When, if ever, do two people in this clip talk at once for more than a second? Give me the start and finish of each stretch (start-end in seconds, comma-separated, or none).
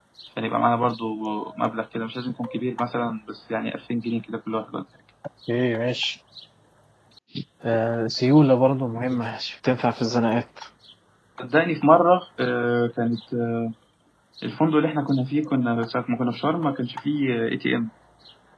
none